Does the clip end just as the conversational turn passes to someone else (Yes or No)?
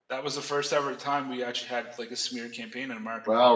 Yes